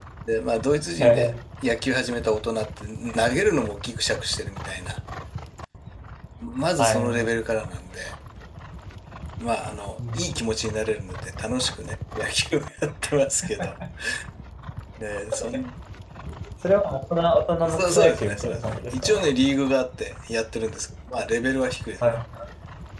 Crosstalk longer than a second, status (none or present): present